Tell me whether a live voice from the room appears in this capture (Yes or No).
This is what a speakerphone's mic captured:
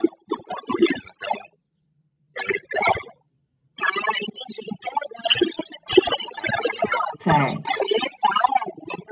Yes